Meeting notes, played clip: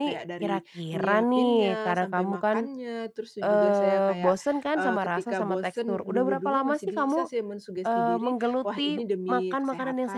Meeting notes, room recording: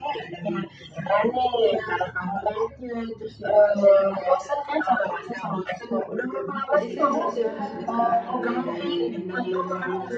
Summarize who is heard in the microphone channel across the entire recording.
both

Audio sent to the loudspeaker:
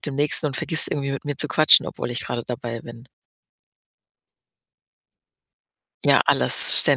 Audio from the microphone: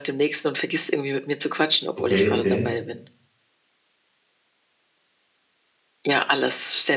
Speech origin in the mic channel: both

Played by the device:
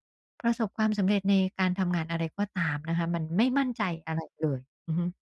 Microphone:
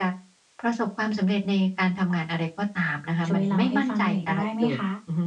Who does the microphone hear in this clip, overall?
both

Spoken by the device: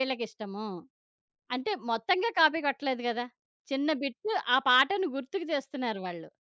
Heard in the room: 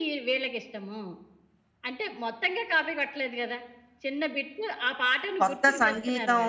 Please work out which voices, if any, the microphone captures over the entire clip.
both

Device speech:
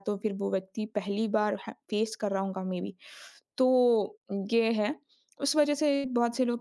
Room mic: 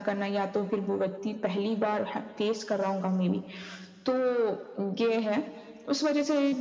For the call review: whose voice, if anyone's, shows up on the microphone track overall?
echo only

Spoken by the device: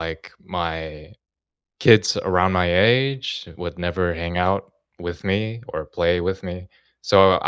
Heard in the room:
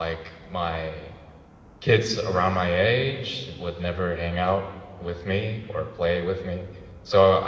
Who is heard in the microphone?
echo only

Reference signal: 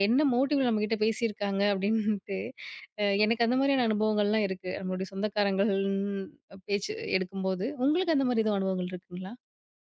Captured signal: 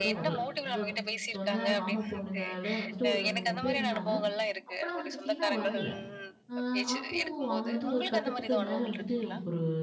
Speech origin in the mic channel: both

